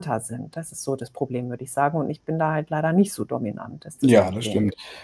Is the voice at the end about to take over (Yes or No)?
Yes